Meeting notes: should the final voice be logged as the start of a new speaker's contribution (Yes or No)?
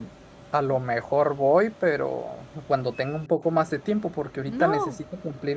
No